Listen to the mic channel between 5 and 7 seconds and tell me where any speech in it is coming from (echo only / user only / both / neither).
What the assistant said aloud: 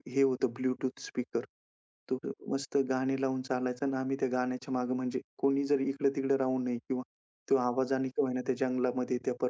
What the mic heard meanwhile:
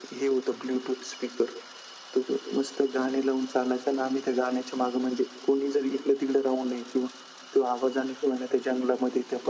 echo only